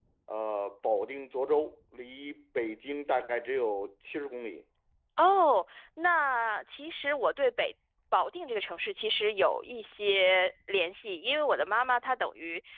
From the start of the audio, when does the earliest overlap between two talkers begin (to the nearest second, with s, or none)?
none